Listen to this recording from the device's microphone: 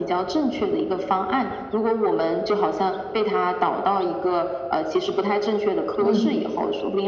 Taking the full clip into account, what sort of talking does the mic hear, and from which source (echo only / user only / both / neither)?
both